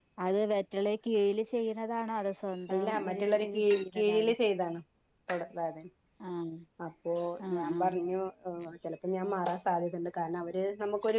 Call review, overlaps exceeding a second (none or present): present